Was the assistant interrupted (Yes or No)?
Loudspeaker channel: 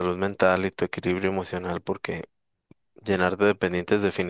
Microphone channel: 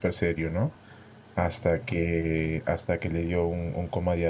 Yes